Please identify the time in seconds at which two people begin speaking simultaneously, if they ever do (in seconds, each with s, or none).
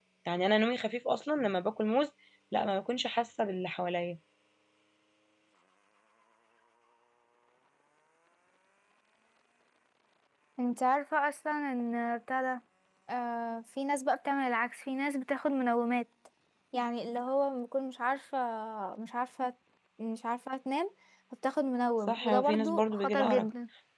22.1 s